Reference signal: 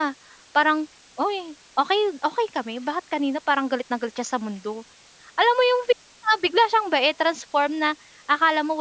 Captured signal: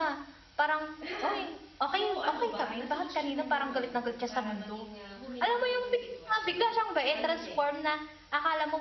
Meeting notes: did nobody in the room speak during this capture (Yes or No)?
No